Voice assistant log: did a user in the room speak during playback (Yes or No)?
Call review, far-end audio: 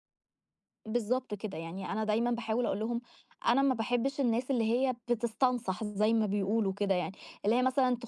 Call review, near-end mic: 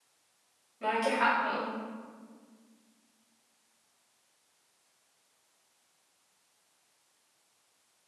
Yes